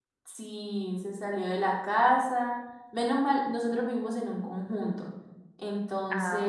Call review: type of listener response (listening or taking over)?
listening